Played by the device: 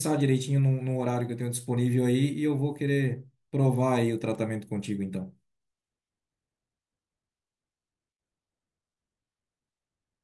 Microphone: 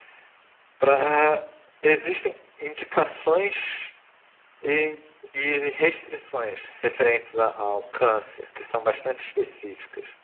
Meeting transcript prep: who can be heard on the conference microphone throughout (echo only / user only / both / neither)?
user only